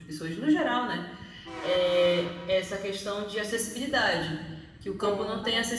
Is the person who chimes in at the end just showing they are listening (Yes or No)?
Yes